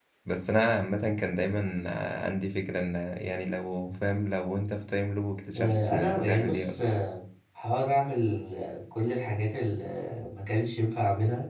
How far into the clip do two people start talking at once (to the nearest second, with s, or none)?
6 s